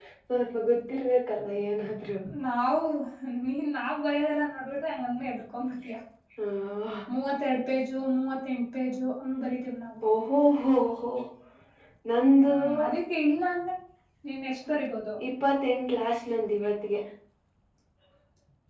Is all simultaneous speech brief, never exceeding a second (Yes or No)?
Yes